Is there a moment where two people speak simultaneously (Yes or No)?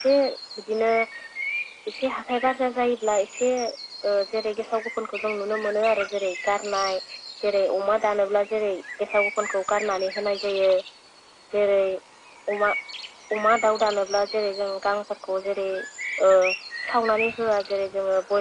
No